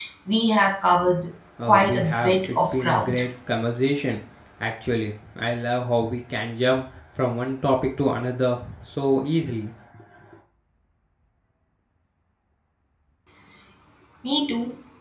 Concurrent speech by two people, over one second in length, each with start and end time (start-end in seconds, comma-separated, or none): 1.6-3.2